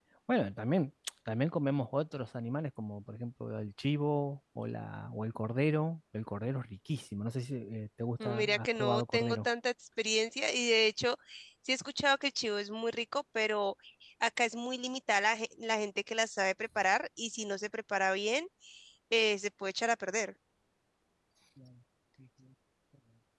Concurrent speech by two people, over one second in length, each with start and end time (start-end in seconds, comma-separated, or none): 8.2-9.5